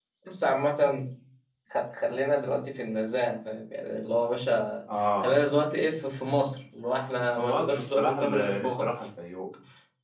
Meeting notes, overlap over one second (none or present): present